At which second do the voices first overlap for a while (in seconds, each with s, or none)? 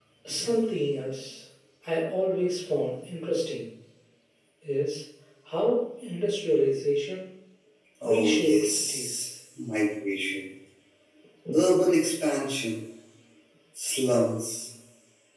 8.0 s